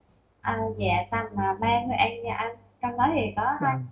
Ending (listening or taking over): listening